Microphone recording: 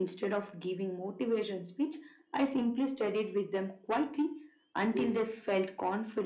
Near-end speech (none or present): none